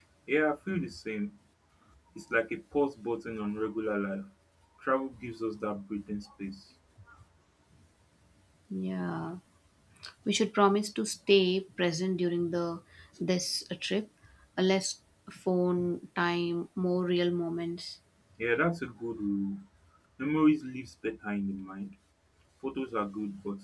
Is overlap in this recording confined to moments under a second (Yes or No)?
Yes